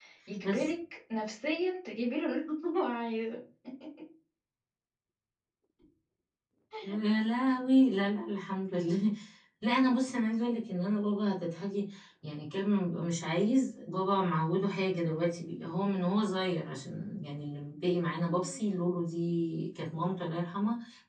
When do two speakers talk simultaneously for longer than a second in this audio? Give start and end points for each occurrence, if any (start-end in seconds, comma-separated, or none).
none